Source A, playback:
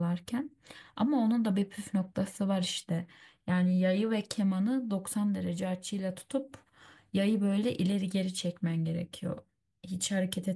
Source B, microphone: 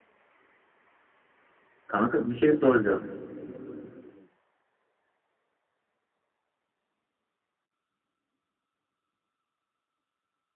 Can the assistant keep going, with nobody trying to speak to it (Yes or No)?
No